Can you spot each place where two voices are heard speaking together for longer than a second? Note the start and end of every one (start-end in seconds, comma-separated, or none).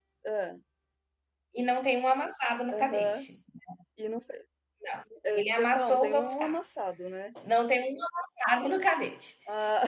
5.3-6.6